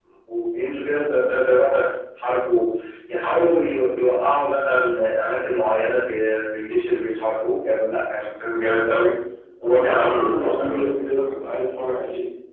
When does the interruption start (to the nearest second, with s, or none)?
10 s